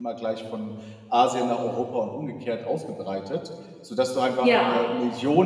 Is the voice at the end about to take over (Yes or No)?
No